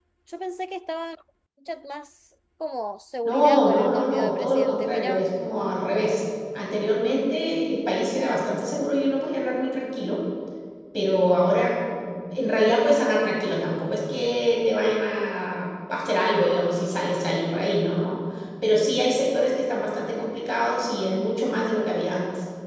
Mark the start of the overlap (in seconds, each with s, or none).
3.2 s